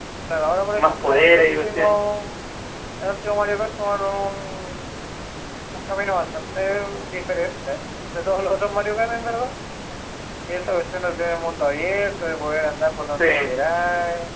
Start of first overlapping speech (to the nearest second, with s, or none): 1 s